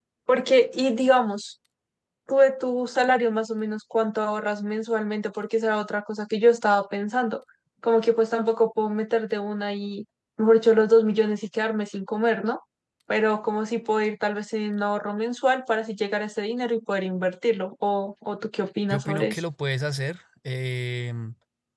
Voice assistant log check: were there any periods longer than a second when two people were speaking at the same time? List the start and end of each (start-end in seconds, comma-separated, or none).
none